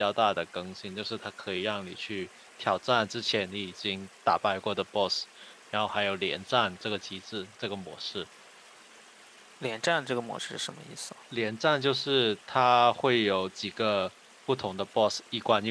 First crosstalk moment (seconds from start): none

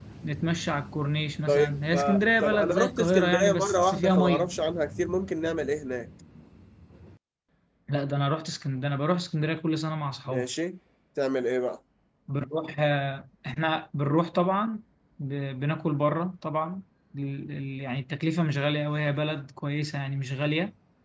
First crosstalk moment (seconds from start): 1.5 s

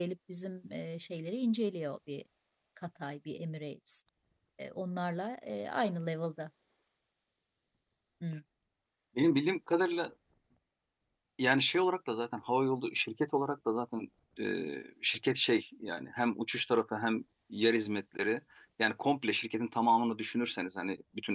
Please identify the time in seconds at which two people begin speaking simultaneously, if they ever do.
none

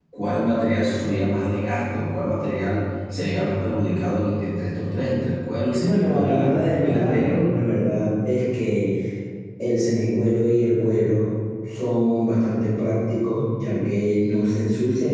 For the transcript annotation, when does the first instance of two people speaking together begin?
5.8 s

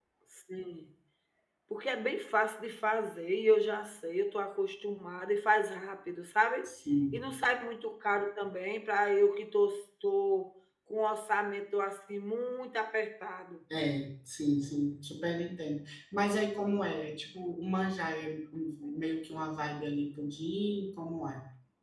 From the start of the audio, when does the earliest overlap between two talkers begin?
none

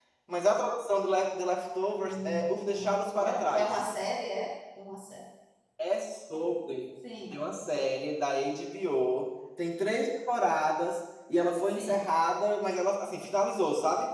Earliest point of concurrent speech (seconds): 1.9 s

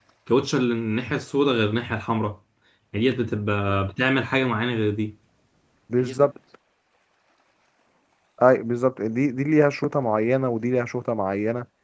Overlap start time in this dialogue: none

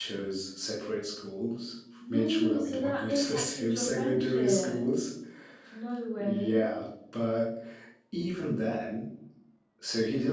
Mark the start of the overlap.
2.1 s

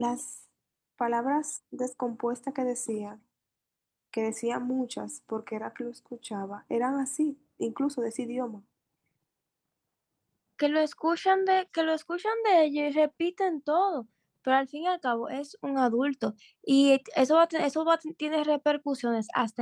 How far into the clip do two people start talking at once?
none

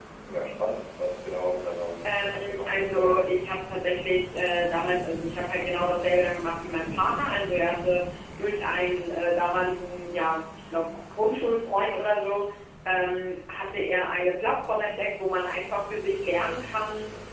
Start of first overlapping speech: 2.0 s

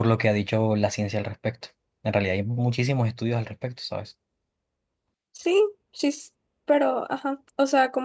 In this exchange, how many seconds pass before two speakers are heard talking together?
none

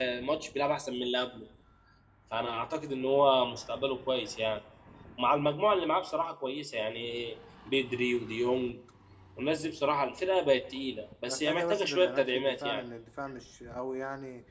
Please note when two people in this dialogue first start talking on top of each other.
11.3 s

